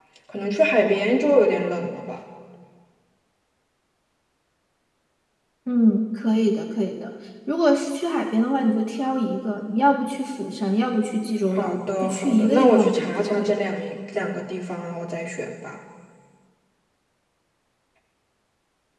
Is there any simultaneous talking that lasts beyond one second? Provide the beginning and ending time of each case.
11.6-13.6

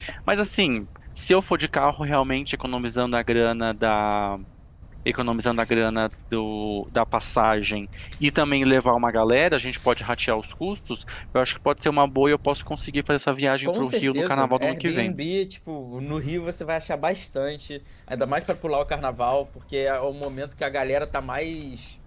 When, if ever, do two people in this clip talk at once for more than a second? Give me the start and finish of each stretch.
13.6-15.2

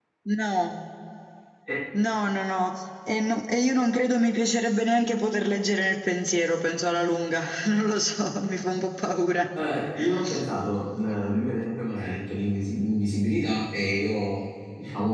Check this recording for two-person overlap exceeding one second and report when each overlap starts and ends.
none

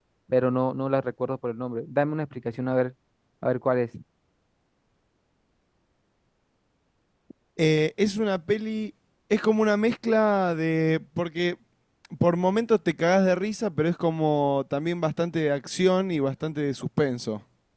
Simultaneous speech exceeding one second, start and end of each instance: none

